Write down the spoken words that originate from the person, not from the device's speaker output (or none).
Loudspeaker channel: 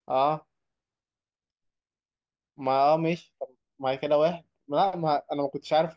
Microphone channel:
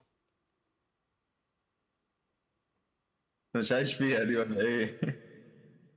مش عايش فيها دي ولا ايه